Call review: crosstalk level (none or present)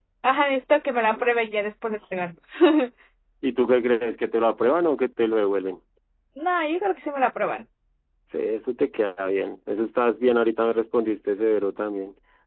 none